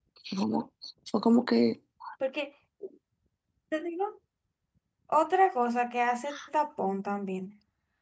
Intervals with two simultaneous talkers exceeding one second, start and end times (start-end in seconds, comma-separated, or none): none